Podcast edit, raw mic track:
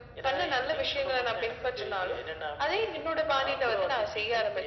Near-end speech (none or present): none